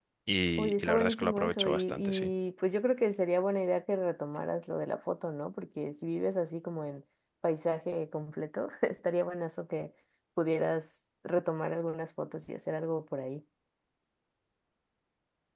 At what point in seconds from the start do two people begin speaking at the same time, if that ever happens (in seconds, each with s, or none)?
0.6 s